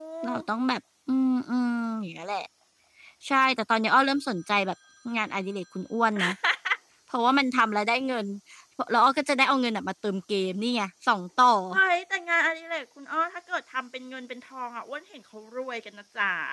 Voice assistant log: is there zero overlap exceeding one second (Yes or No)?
Yes